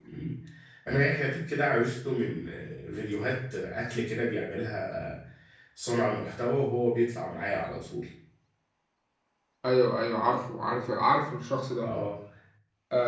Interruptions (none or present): none